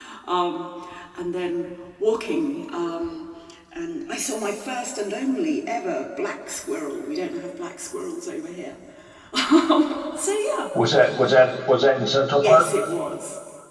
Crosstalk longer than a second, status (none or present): none